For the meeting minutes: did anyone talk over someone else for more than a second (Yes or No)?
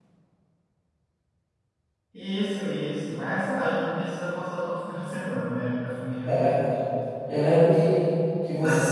No